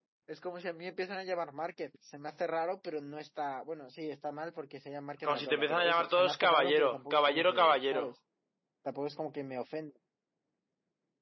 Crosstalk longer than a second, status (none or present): present